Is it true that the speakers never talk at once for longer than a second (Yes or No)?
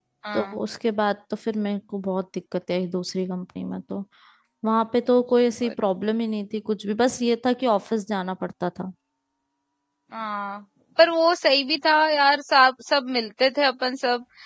Yes